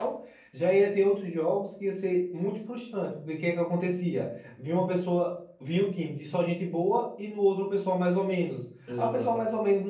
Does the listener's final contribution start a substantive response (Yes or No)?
No